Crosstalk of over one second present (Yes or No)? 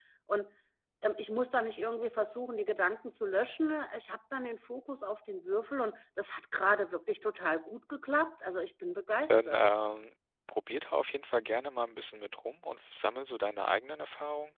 No